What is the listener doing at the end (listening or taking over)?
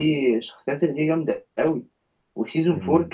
listening